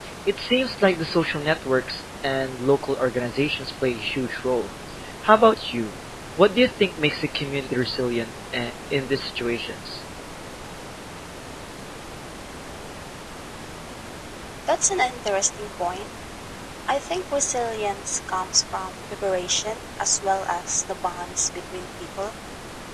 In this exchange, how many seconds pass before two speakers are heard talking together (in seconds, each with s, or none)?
none